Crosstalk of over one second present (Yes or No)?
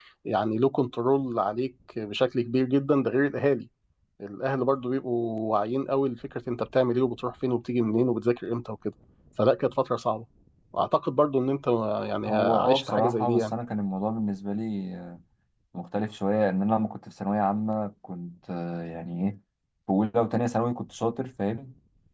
Yes